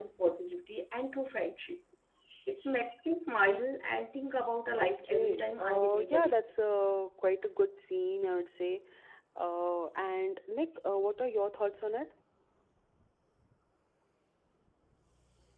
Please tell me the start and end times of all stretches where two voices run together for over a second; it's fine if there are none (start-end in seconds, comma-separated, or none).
4.8-6.4